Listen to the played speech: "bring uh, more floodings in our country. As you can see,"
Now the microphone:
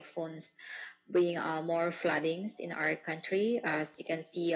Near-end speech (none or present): none